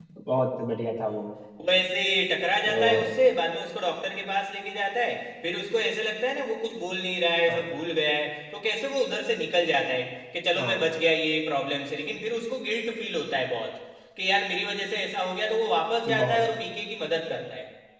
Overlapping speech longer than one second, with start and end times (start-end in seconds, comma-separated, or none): none